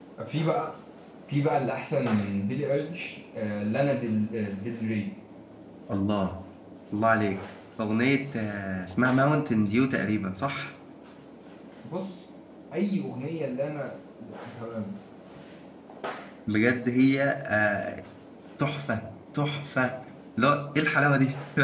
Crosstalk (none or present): none